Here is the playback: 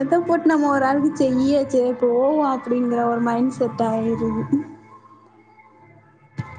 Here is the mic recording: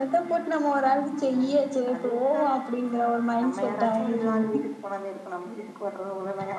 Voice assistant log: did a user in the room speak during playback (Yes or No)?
Yes